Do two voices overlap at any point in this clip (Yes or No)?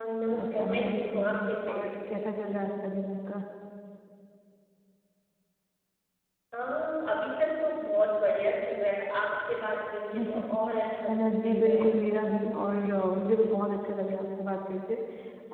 Yes